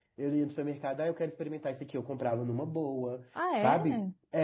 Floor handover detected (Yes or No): No